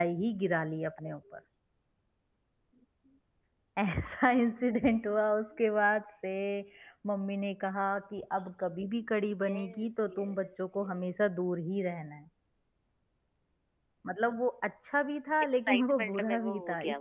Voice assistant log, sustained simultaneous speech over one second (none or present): present